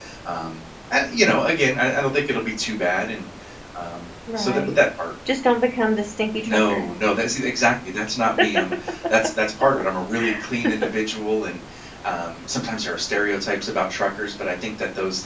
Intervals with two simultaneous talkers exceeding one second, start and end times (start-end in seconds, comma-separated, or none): none